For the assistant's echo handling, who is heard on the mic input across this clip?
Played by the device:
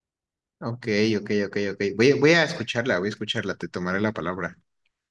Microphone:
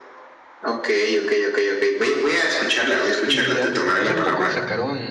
both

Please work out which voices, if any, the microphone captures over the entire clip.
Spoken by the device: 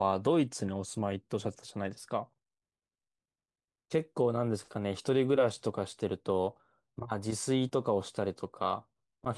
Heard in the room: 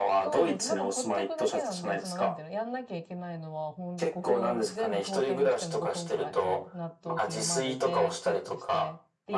both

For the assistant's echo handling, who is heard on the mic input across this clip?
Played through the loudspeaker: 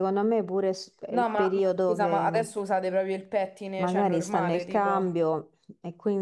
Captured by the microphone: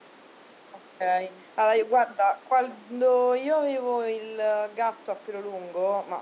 user only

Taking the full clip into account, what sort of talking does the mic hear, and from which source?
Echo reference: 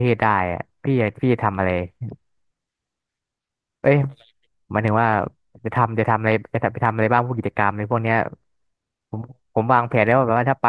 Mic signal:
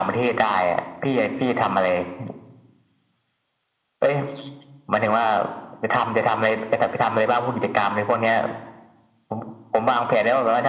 echo only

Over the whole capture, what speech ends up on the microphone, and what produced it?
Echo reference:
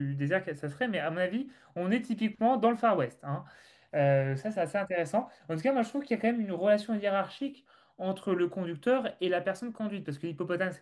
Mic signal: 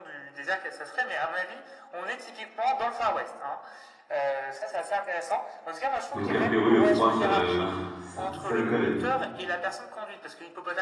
both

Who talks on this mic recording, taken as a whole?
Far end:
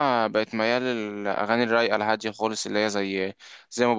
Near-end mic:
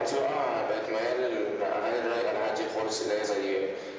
echo only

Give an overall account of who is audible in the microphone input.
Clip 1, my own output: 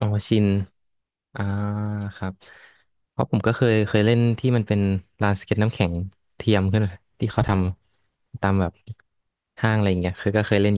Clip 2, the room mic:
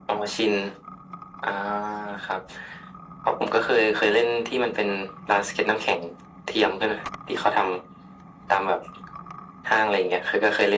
echo only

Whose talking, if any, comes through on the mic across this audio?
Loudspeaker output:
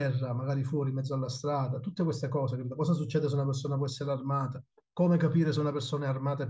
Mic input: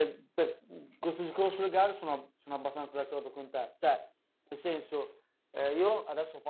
user only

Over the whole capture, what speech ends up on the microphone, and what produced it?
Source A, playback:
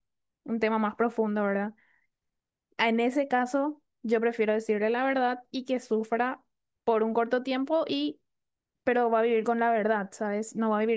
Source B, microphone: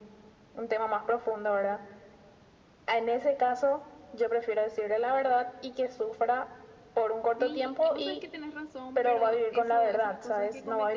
both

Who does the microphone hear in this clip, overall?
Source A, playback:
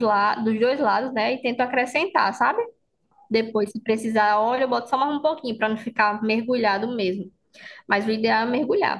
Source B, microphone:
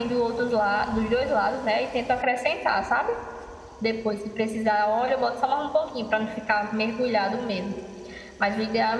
echo only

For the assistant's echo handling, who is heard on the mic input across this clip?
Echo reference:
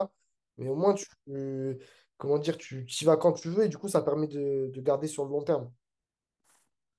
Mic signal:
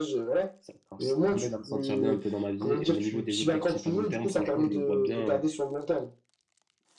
both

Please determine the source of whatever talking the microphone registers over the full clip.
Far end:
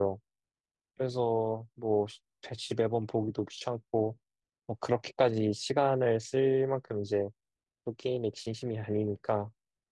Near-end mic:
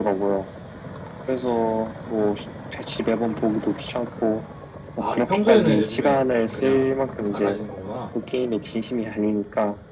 both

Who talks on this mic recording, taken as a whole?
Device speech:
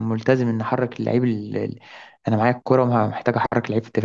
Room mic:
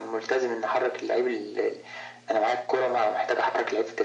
echo only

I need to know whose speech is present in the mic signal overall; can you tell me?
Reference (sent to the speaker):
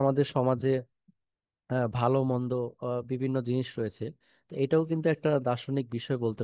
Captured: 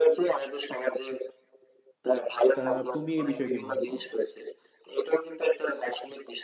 both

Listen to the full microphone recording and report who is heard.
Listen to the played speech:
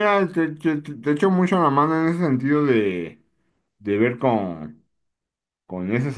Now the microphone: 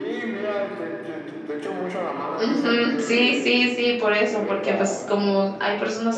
both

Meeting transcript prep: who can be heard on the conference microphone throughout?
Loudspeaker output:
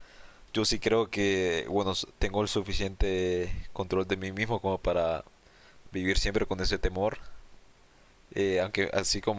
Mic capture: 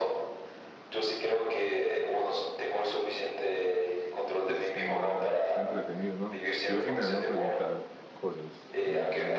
both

